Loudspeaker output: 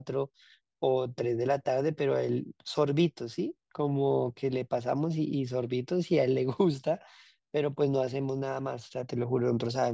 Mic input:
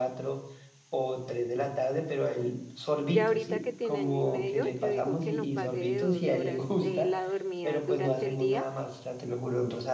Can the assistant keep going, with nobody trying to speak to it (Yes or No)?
No